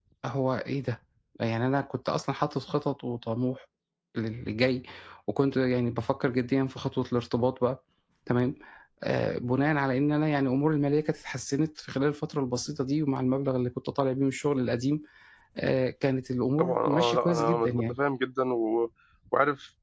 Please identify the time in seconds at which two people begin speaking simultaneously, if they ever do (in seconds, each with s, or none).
16.6 s